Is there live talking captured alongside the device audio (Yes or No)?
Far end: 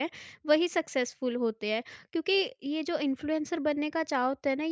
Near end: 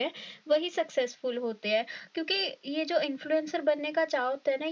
No